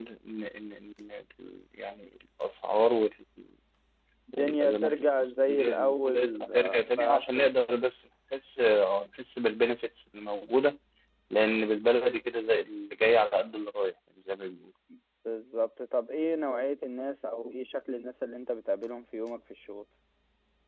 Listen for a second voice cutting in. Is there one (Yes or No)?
Yes